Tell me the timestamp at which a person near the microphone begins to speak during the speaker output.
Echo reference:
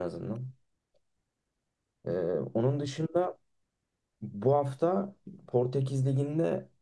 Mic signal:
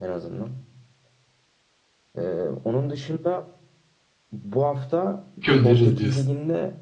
5.4 s

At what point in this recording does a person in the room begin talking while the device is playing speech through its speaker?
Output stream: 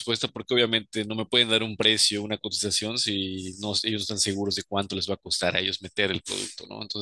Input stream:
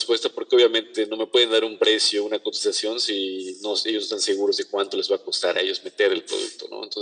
none

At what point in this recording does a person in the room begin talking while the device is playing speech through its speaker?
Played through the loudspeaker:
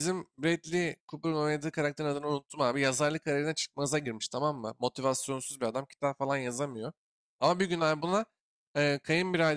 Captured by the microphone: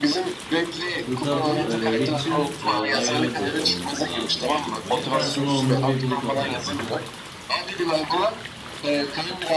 1.0 s

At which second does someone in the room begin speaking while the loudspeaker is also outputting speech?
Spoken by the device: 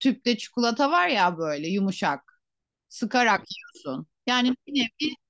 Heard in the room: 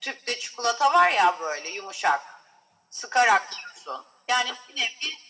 none

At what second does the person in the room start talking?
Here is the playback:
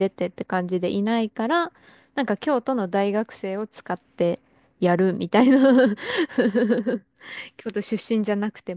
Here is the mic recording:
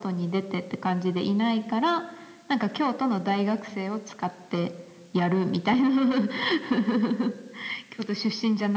none

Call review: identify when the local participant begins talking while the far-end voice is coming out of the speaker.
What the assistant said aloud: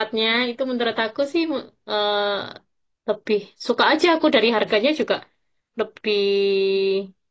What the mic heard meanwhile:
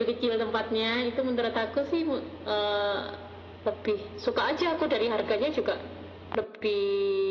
none

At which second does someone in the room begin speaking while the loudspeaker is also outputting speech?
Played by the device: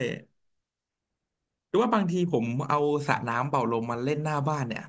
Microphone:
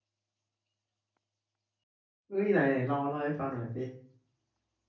2.3 s

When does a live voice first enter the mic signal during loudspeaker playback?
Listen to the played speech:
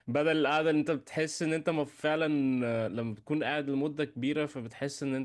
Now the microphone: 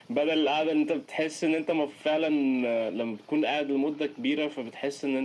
none

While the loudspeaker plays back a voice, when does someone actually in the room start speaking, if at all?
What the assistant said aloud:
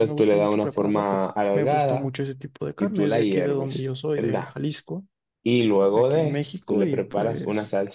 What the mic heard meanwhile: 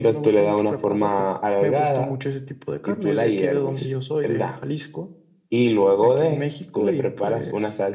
none

